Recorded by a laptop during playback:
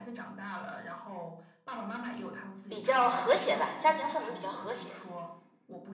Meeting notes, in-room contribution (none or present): present